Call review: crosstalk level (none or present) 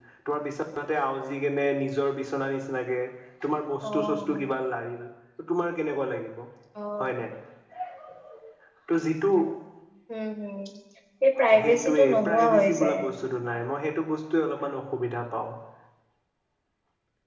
present